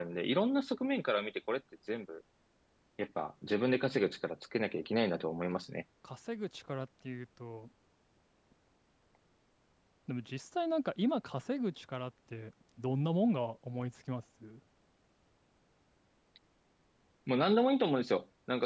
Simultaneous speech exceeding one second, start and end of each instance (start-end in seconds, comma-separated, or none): none